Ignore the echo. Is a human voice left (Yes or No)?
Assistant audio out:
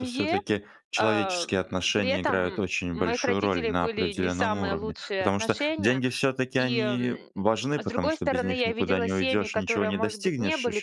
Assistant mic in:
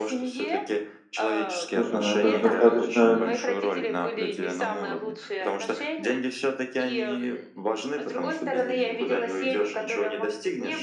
Yes